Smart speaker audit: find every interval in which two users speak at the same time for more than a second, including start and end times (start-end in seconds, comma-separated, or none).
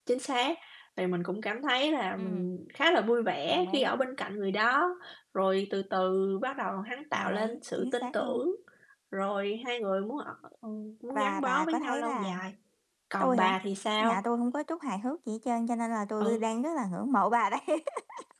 7.1-8.4, 11.1-12.3